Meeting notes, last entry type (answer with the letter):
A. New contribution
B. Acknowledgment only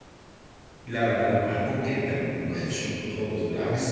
A